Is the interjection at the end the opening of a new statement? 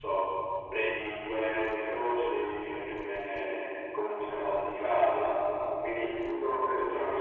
No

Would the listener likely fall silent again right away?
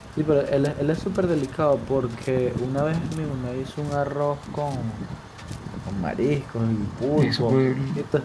Yes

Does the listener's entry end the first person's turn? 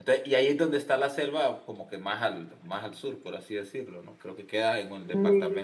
No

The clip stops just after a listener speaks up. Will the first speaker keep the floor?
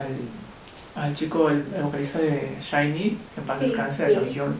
No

